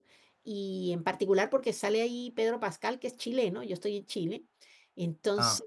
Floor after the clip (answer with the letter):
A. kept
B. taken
A